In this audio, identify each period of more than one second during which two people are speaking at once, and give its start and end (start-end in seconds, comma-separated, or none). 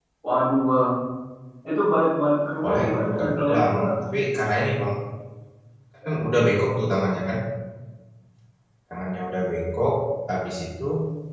2.6-3.9